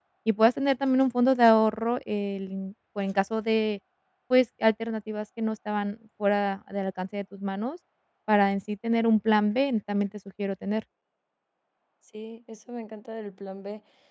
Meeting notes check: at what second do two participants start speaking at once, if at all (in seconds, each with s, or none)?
none